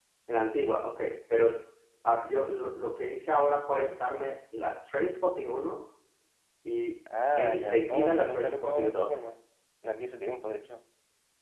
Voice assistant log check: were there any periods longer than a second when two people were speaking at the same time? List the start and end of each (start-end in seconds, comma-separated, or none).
7.4-9.1